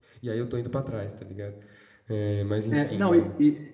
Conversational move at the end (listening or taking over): taking over